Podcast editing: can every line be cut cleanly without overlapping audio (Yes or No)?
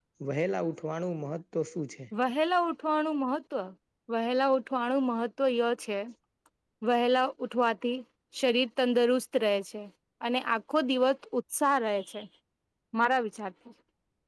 Yes